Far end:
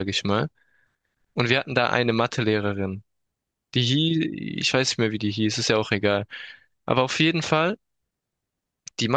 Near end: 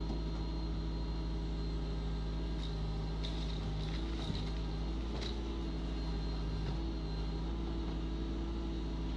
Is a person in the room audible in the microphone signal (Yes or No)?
No